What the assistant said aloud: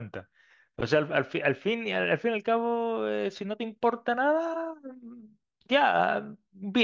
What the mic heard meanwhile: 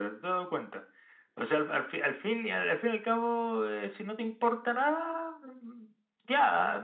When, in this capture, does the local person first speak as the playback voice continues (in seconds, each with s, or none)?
none